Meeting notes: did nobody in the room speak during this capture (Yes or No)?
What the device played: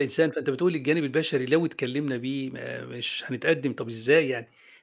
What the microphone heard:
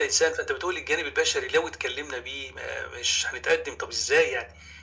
Yes